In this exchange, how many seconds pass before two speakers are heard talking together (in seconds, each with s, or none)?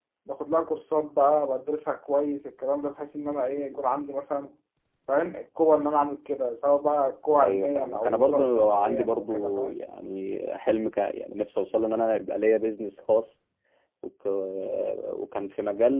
7.4 s